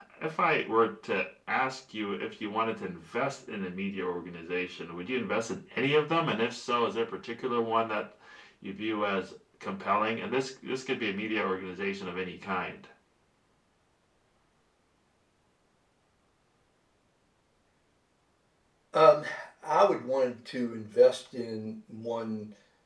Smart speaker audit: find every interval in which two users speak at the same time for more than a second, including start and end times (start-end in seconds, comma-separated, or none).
none